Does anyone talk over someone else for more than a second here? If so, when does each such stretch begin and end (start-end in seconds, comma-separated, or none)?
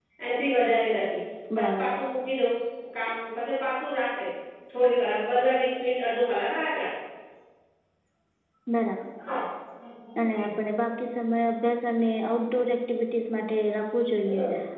none